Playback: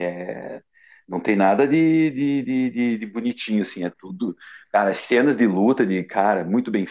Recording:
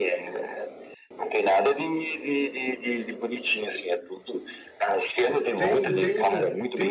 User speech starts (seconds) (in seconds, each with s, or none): 5.6 s